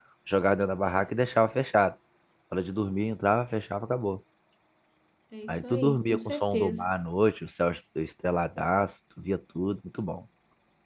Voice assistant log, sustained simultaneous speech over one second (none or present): present